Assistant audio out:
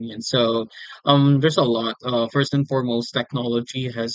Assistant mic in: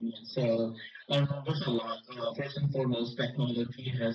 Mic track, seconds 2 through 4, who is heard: echo only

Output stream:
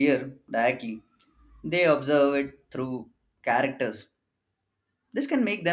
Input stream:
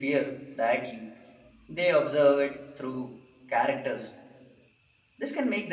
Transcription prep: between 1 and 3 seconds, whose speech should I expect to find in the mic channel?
echo only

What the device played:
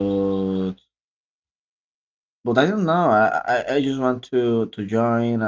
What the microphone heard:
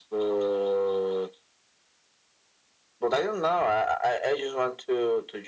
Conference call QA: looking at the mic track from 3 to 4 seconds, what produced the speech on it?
echo only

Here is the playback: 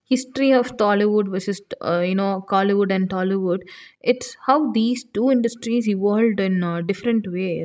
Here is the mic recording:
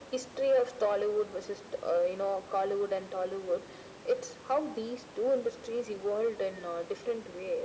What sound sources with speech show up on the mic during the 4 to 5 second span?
echo only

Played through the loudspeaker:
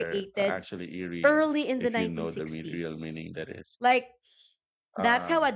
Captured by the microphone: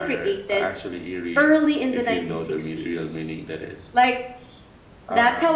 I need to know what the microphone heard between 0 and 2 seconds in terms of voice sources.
echo only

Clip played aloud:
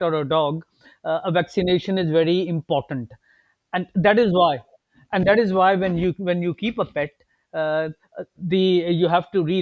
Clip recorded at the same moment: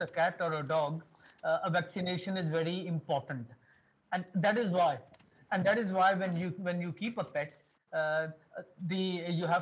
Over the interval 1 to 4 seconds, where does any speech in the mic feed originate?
echo only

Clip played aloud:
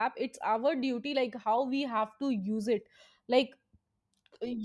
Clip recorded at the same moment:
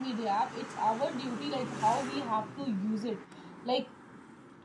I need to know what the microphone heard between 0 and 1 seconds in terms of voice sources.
echo only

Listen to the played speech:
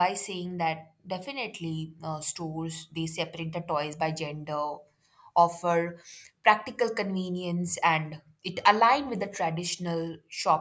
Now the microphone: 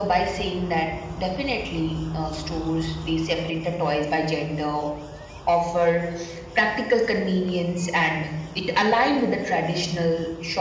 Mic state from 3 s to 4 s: echo only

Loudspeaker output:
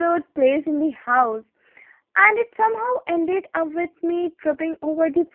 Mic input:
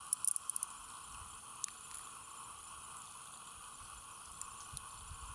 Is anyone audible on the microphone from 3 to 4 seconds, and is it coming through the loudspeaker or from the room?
neither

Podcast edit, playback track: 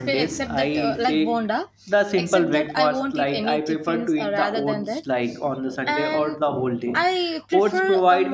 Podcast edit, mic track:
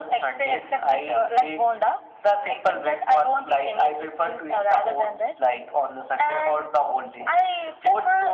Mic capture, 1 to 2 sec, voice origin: echo only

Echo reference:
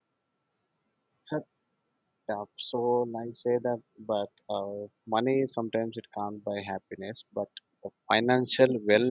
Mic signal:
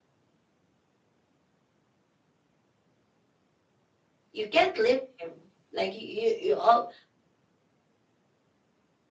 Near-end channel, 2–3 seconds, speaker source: neither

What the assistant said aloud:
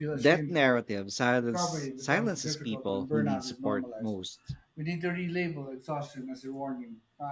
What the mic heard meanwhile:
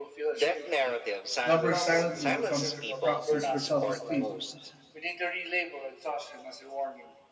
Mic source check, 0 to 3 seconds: both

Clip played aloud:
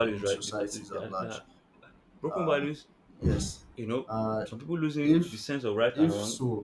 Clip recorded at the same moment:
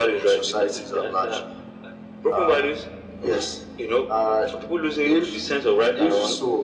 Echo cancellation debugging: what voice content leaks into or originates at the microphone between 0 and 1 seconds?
echo only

